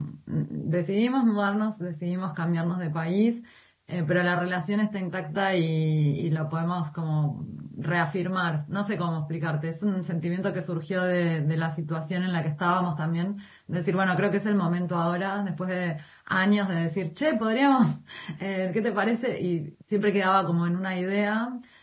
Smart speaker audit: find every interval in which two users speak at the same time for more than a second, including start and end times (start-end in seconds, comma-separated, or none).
none